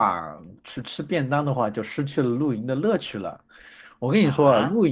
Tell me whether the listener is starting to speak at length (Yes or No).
Yes